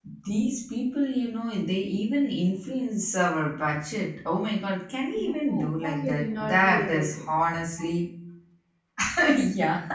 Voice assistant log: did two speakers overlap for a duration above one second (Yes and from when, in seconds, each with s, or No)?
Yes, from 5.2 s